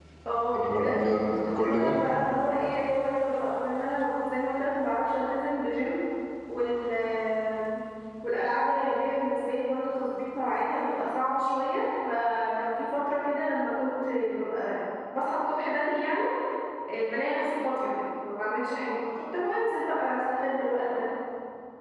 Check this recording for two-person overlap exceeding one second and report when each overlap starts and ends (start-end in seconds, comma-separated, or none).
0.5-2.0